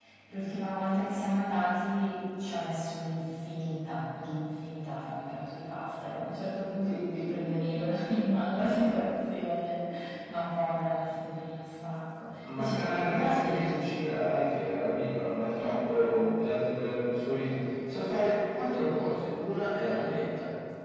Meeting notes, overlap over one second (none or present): present